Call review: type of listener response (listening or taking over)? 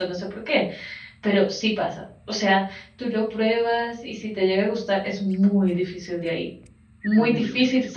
listening